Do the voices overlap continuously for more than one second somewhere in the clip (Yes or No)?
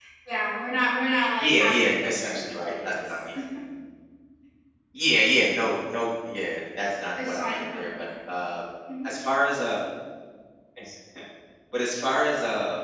Yes